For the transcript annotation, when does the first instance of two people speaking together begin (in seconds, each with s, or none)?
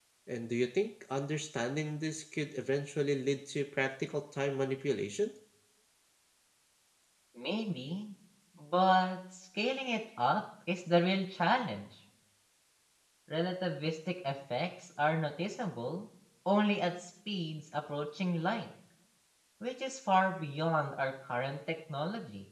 none